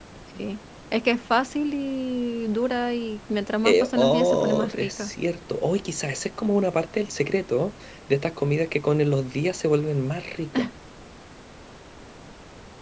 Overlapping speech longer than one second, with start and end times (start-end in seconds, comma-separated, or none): 3.6-5.1